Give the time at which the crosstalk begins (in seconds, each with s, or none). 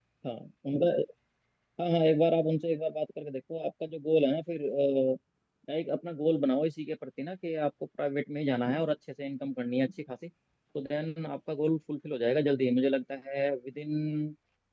none